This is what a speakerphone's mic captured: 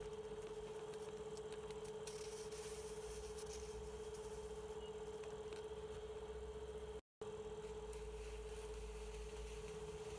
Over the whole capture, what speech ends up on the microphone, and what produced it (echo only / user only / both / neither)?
neither